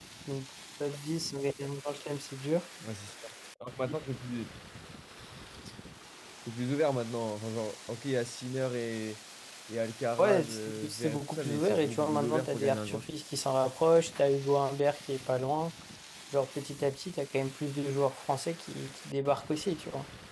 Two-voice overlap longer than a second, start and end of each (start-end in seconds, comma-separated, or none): 10.2-13.0